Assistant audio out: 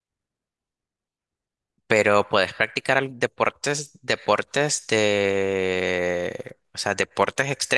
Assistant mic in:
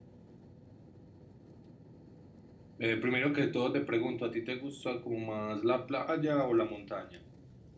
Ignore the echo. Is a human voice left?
Yes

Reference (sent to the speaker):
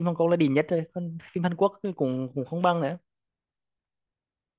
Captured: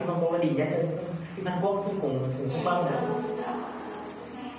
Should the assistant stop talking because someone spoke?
Yes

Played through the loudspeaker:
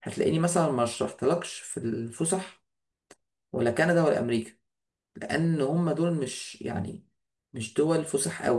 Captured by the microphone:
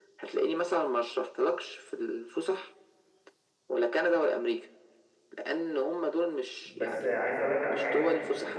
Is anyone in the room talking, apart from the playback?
Yes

